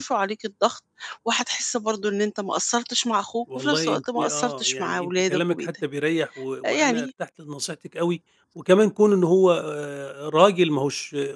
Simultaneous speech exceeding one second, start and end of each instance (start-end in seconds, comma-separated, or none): 3.6-5.7